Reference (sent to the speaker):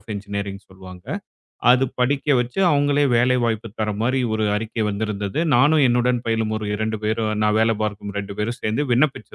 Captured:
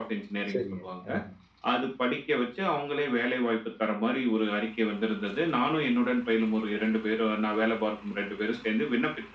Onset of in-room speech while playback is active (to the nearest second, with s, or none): 1 s